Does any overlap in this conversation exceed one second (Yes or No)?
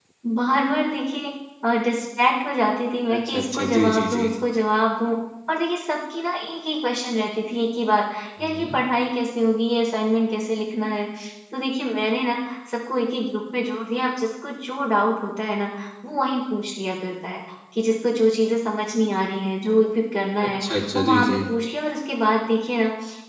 Yes